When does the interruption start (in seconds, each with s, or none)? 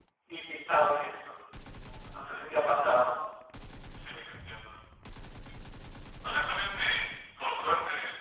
none